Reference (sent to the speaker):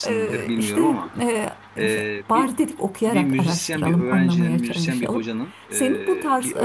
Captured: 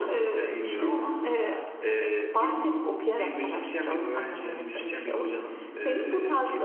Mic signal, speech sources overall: echo only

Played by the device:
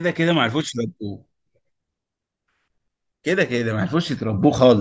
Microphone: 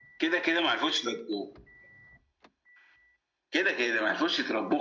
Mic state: echo only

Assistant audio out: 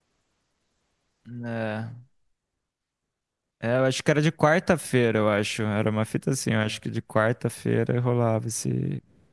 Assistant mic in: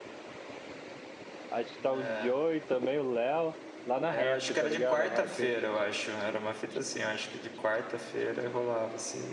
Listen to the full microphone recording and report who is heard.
both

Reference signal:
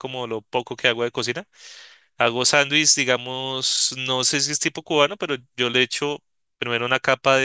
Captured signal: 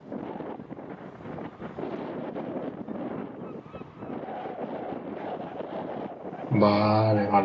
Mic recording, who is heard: user only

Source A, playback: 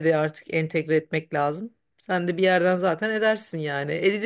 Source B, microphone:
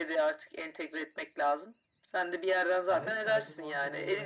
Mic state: both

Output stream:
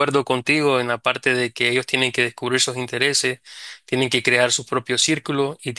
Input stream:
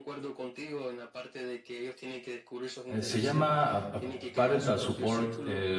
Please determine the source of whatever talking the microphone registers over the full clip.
both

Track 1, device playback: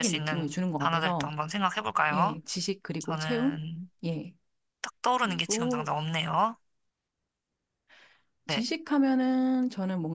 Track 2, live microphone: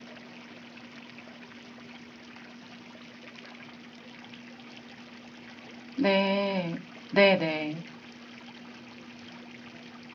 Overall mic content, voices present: user only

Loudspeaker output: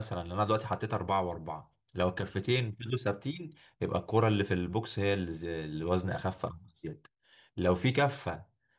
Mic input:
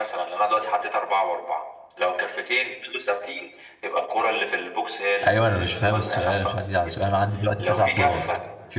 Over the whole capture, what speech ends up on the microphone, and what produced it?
both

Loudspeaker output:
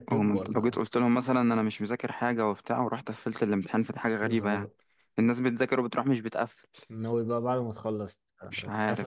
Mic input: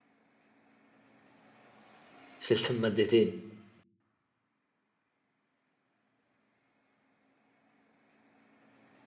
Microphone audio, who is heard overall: user only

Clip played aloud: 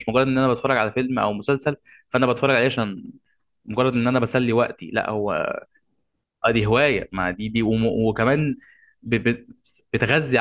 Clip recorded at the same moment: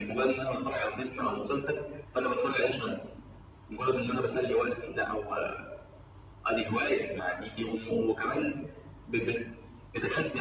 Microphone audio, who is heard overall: echo only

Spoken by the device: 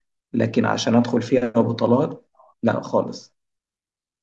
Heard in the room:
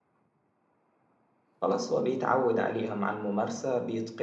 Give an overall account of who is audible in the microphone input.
user only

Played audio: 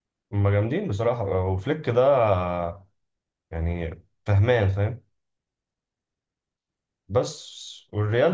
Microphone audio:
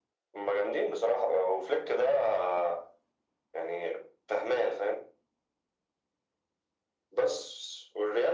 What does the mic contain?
echo only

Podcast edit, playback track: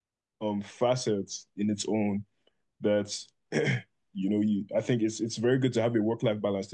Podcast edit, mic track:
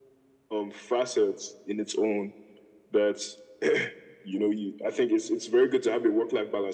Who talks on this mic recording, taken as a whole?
echo only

